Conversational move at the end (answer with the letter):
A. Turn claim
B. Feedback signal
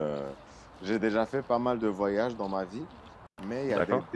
B